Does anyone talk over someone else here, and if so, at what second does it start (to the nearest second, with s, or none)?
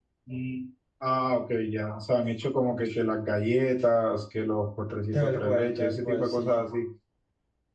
5 s